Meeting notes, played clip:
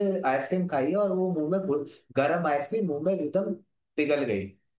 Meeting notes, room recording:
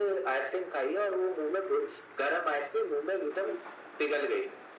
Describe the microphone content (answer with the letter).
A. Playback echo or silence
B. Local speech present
A